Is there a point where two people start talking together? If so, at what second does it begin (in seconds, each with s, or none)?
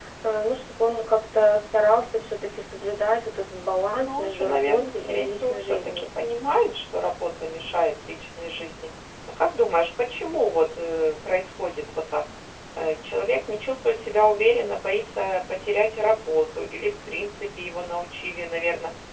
3.9 s